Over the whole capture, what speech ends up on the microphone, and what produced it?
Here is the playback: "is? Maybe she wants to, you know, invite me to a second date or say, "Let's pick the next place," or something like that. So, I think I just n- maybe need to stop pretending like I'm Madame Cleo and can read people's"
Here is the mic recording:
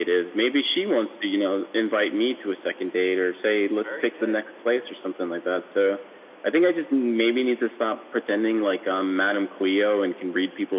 both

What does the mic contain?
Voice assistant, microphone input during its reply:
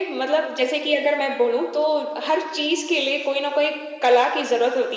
echo only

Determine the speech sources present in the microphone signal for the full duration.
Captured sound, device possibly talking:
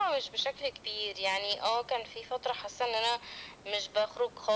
echo only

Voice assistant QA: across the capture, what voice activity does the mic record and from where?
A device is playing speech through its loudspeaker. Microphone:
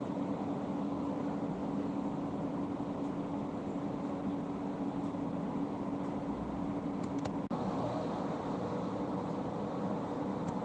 neither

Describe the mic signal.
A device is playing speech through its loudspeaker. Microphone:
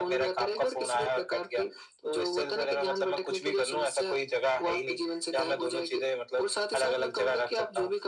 echo only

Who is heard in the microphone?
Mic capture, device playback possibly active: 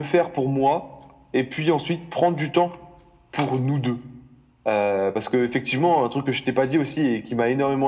echo only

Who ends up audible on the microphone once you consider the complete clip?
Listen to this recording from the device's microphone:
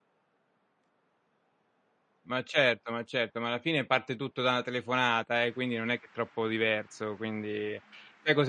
user only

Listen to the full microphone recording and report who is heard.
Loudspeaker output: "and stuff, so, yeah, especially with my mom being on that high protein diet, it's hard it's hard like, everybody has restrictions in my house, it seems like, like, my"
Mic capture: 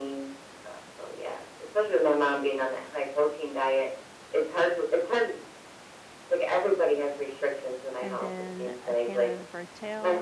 both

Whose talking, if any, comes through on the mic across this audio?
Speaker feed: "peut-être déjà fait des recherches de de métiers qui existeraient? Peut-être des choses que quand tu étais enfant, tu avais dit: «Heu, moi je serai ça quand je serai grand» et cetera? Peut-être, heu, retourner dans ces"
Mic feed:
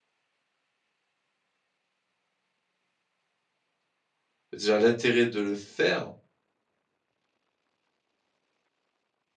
user only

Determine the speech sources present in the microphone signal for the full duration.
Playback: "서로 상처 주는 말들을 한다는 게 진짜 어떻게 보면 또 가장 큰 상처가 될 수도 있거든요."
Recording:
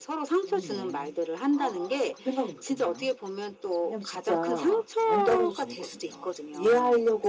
both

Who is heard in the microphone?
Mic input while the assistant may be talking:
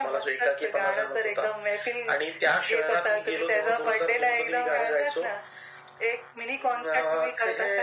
echo only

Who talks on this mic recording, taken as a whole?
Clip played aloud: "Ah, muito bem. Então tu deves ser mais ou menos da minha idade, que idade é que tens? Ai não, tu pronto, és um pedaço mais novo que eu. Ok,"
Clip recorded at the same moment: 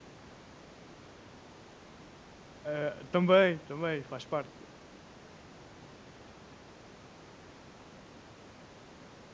user only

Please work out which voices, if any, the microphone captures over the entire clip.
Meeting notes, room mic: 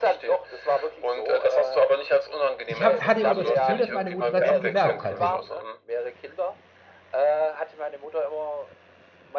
both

